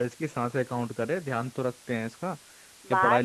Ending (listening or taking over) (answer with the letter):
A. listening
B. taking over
B